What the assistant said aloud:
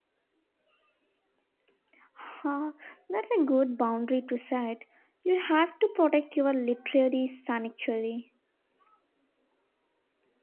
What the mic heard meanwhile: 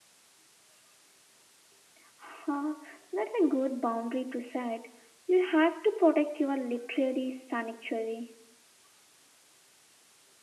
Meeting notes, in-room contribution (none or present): none